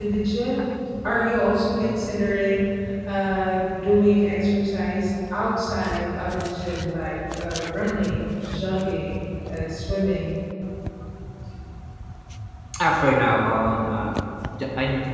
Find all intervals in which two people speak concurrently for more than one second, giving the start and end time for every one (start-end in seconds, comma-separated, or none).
none